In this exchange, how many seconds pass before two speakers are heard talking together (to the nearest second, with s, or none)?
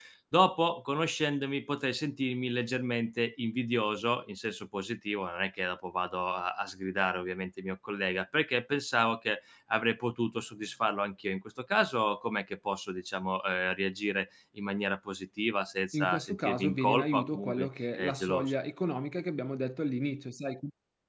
16 s